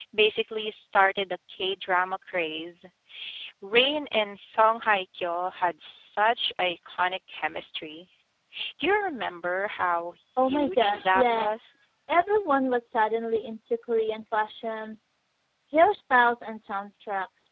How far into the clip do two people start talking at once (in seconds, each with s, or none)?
10.4 s